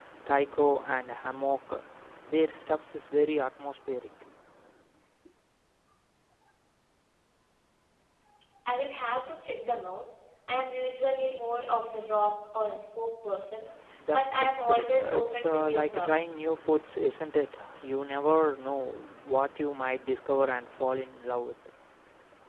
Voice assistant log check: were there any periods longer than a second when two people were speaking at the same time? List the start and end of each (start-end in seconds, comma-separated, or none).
14.1-16.3